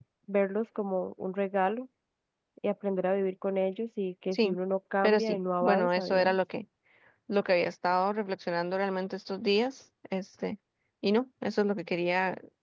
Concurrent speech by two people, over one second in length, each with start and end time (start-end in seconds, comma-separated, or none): 5.0-6.4